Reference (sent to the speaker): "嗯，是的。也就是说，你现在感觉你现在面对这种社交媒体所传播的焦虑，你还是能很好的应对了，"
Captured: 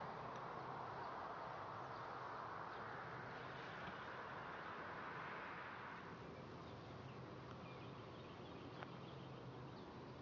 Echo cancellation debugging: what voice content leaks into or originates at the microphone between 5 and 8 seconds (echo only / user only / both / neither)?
neither